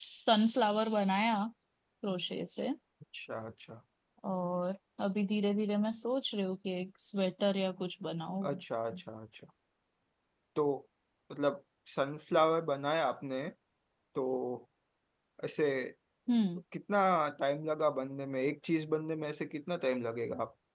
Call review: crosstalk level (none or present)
none